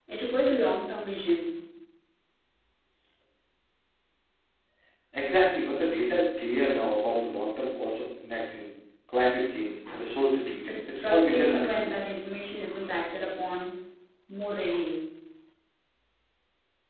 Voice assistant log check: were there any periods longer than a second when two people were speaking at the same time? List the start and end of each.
10.7-11.9

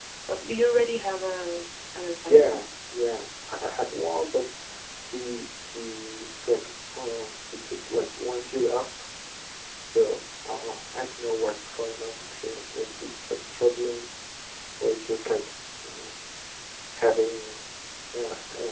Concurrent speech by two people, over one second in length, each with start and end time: none

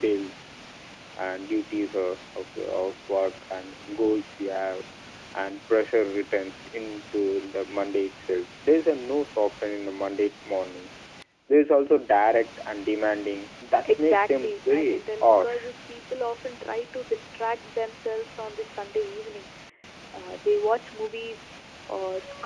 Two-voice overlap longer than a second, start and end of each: 13.8-15.7

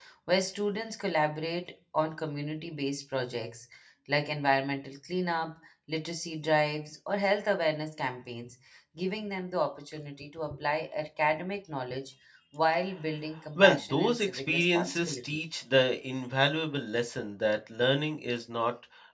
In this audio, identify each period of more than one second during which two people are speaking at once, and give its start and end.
13.6-15.2

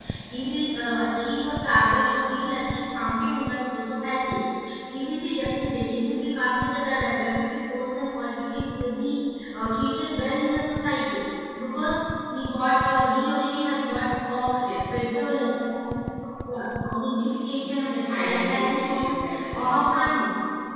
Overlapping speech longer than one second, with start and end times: 17.6-19.8

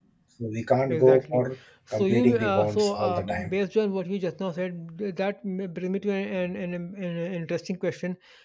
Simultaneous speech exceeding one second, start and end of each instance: 1.9-3.5

